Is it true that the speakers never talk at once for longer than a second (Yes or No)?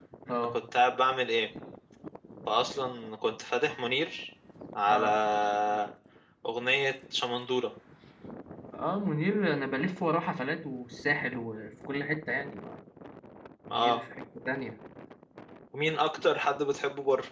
Yes